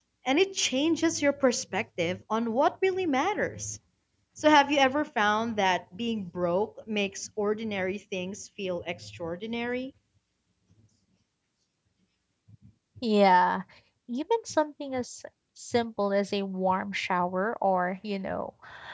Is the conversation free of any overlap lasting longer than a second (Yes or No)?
Yes